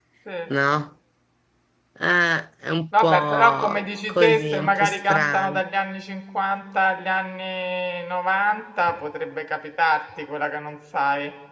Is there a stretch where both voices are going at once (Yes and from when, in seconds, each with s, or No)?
Yes, from 2.9 s